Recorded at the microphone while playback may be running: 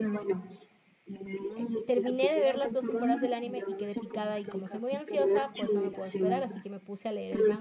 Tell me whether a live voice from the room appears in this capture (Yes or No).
Yes